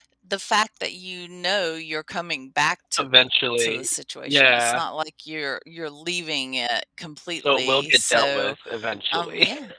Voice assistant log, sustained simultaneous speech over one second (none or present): present